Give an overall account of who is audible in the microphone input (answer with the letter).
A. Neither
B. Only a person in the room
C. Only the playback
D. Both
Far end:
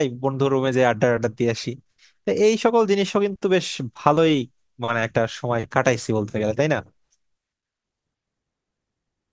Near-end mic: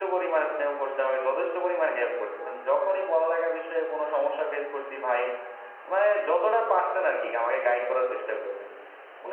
B